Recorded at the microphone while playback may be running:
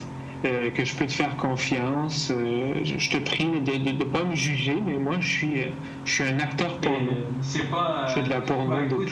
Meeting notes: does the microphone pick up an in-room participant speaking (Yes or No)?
Yes